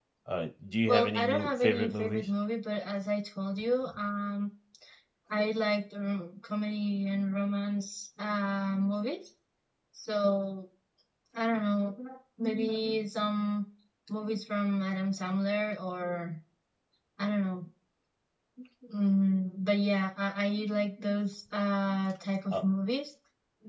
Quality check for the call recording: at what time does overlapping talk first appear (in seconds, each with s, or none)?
0.9 s